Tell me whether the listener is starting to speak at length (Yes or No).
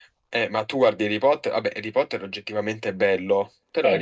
Yes